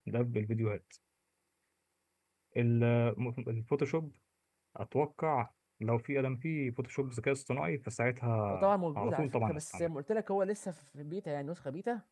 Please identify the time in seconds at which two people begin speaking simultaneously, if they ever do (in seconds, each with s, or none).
8.5 s